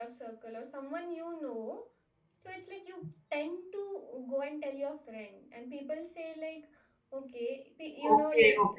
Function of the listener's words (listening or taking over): taking over